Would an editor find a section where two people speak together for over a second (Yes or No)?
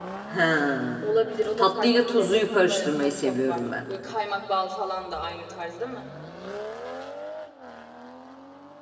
Yes